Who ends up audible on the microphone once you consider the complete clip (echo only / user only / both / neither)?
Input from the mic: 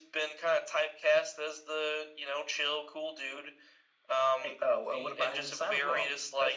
both